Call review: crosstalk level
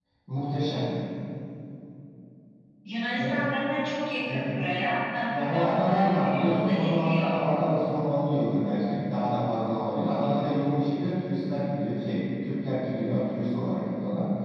present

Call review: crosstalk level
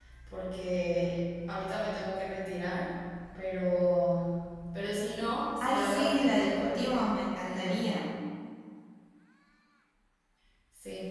present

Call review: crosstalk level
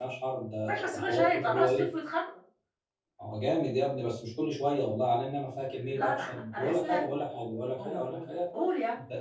present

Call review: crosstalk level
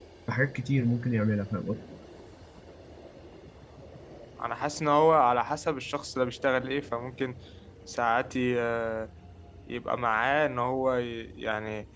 none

